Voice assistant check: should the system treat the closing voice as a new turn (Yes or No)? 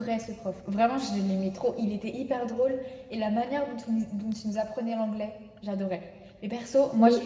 No